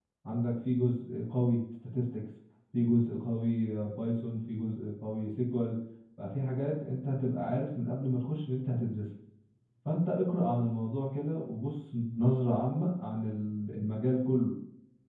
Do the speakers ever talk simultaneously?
No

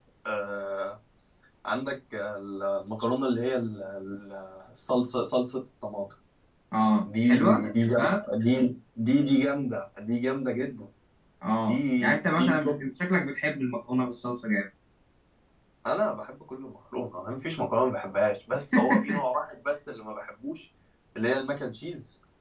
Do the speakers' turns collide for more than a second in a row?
Yes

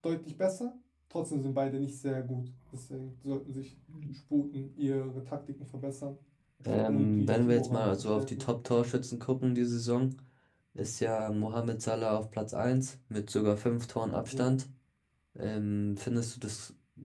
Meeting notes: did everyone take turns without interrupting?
No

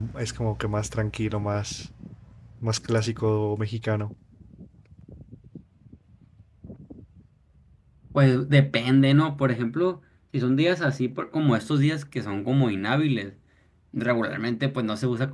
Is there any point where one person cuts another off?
No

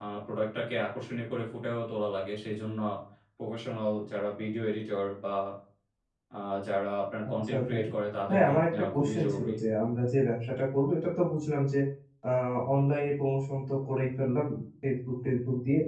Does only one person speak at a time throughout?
No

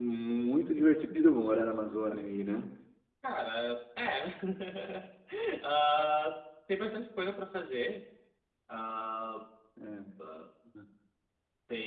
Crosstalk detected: No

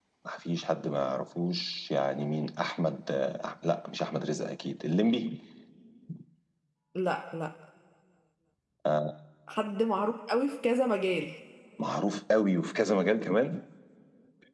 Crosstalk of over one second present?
No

